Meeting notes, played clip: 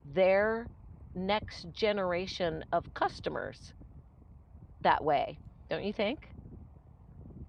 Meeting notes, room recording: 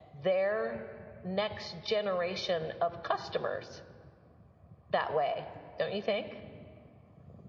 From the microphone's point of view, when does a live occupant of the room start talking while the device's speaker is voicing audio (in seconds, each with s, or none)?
none